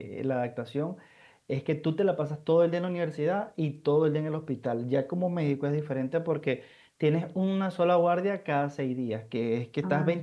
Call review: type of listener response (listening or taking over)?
listening